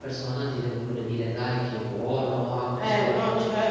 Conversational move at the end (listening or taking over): taking over